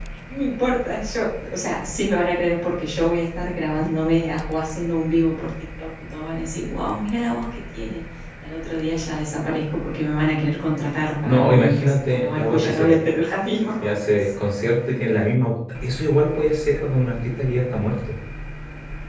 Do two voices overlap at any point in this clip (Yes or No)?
Yes